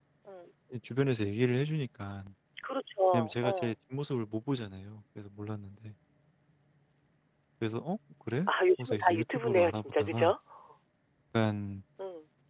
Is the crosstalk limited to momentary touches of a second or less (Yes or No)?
No